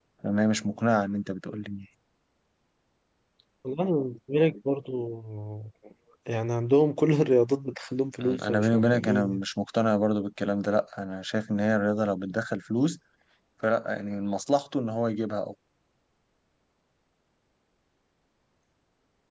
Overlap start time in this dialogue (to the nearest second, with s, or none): 8 s